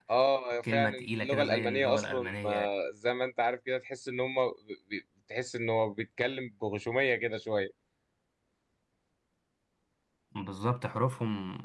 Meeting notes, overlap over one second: present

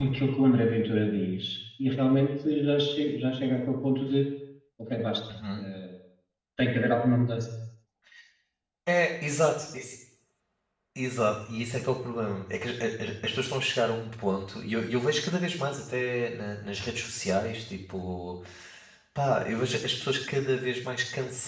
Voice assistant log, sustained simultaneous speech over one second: none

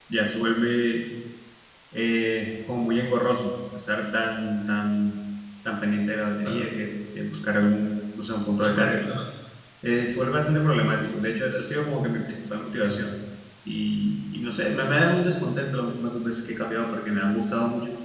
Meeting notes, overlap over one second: none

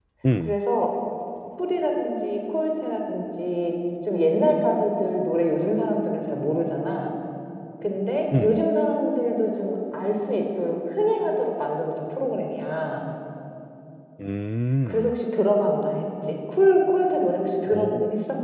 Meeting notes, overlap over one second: none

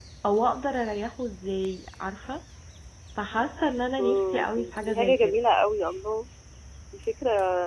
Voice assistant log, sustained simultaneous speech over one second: present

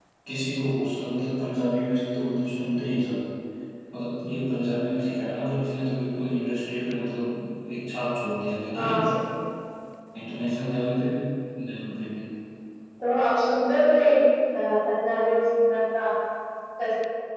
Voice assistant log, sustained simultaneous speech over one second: none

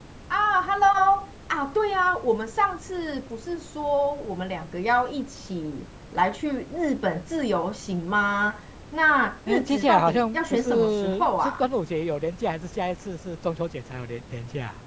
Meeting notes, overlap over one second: present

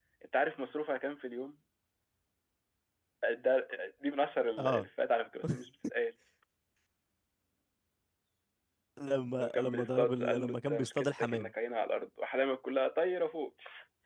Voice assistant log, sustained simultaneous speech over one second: present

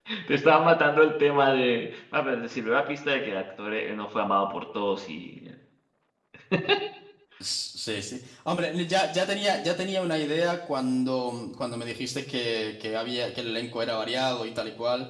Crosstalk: none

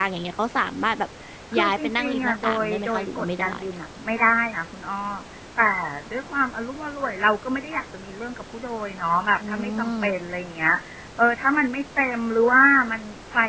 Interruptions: present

